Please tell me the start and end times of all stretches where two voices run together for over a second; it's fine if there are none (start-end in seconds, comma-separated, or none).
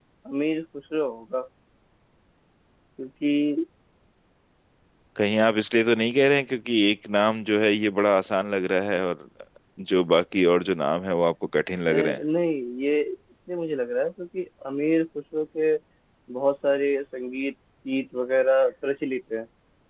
none